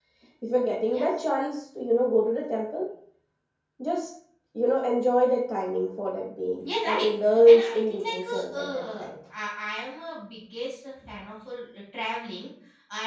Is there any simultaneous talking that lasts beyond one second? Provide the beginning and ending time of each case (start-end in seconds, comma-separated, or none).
7.5-9.1